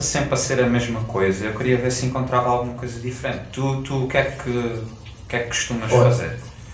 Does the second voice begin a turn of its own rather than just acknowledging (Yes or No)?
Yes